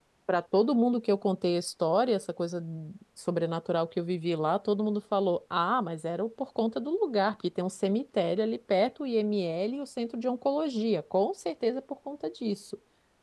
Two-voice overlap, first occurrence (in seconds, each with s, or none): none